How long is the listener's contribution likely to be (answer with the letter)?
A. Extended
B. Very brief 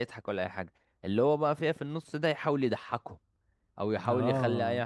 B